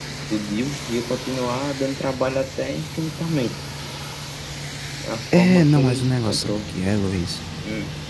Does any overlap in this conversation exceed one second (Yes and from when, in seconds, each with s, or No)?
Yes, from 5.4 s